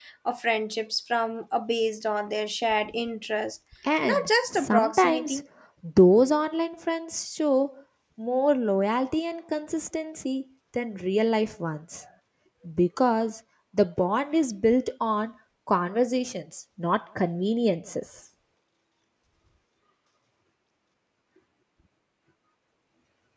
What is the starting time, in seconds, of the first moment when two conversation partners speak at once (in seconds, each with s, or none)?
4.0 s